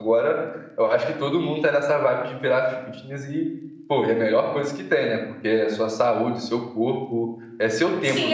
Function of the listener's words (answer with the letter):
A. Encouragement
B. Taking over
B